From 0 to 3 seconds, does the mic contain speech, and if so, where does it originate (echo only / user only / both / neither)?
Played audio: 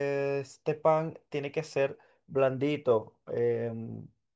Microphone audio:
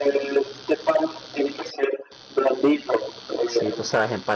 echo only